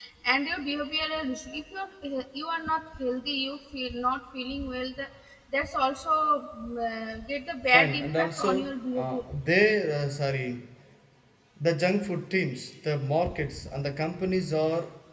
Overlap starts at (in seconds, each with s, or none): 7.7 s